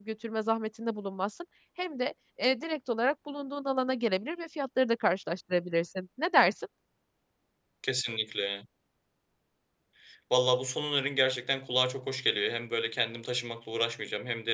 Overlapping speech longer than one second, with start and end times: none

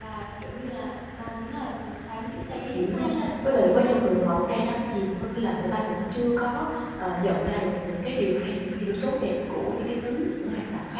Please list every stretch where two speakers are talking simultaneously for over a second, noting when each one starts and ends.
2.7-4.0

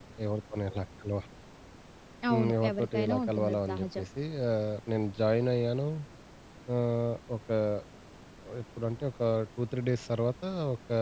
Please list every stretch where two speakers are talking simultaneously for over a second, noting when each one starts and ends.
2.3-4.0

